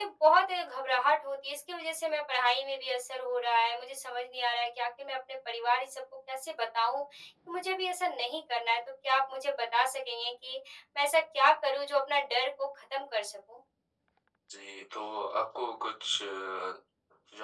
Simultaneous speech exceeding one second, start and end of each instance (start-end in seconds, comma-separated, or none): none